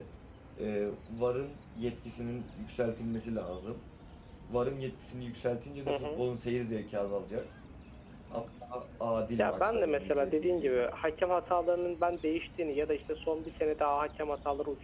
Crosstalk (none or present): present